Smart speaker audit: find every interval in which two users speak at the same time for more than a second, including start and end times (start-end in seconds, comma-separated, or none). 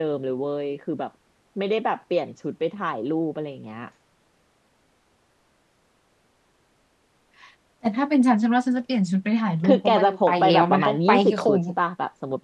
9.7-11.6